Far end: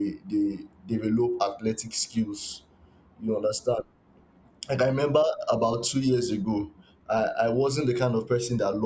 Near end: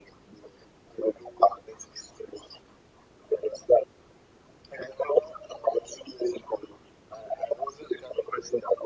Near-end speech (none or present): none